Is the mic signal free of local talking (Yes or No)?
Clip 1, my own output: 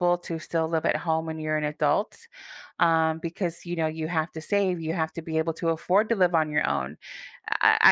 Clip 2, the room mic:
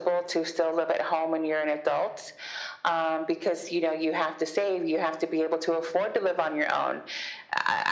Yes